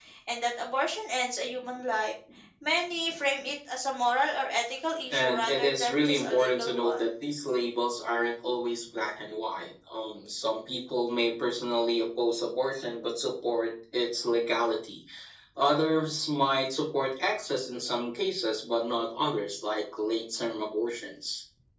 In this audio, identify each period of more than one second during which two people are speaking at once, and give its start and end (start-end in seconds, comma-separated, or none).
5.1-7.1